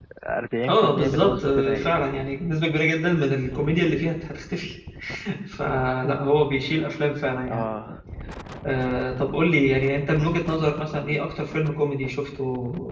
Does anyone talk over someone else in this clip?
Yes, from 0.7 s

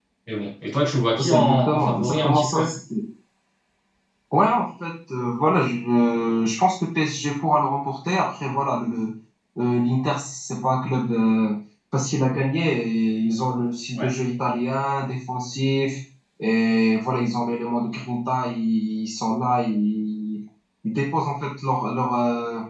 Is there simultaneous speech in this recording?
Yes, from 1.2 s

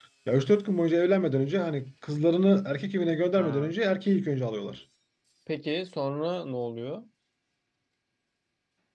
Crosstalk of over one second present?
No

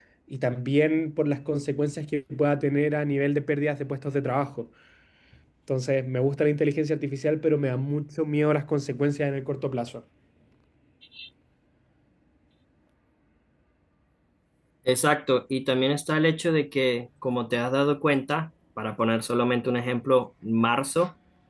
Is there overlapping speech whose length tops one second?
No

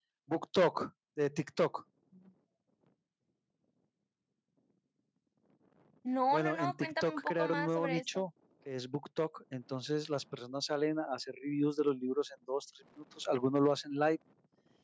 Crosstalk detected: Yes, from 6.3 s

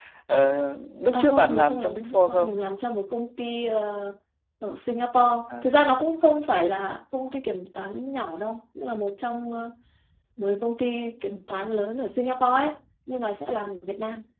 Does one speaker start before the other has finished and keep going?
Yes, from 1.1 s

